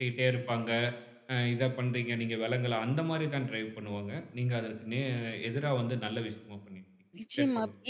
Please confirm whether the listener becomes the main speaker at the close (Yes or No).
Yes